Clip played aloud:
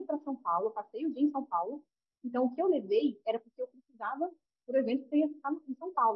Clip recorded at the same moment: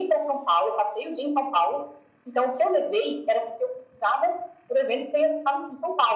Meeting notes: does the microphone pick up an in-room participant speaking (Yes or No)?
No